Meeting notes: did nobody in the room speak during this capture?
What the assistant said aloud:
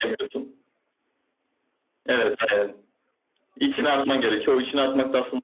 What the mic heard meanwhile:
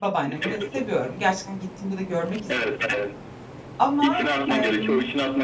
No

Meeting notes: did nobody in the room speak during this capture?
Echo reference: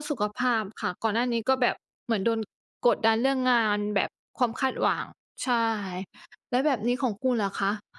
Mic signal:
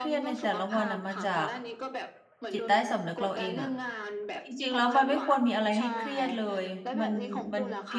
No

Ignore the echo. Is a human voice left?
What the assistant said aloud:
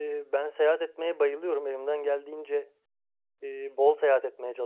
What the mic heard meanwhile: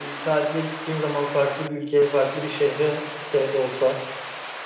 Yes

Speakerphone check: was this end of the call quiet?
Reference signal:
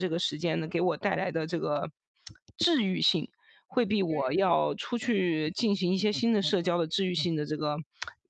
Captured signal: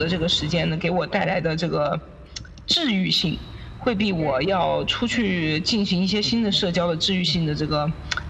Yes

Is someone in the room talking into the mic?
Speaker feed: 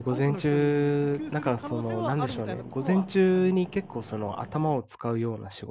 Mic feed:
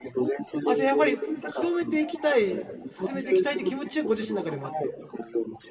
Yes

